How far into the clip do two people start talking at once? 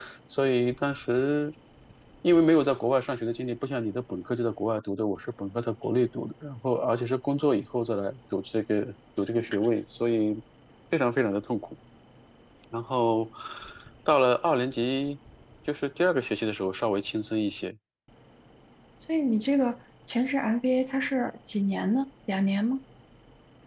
none

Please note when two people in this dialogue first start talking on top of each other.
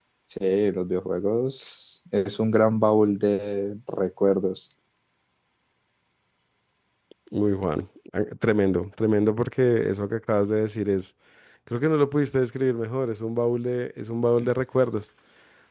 none

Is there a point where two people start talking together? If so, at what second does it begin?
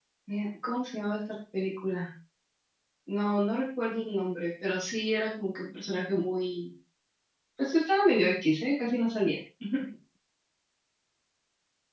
none

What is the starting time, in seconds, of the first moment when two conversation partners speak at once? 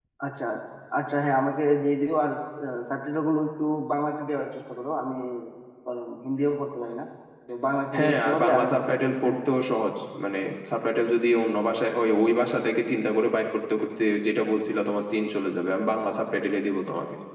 8.0 s

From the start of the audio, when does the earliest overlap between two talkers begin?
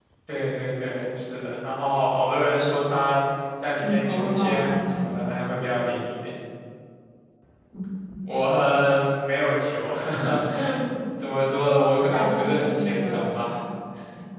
3.8 s

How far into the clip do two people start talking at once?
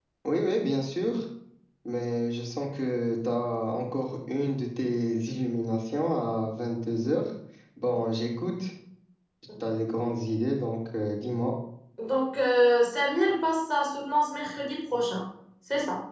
none

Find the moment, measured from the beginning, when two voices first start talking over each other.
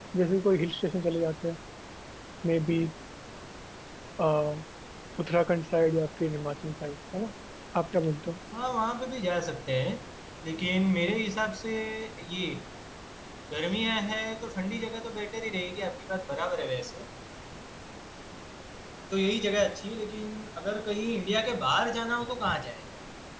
none

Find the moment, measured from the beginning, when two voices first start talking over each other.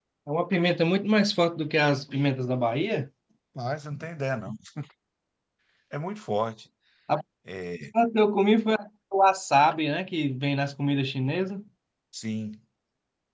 none

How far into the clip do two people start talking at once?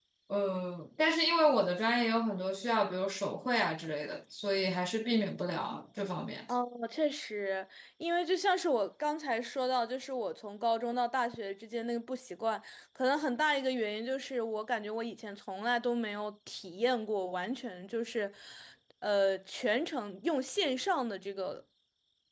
none

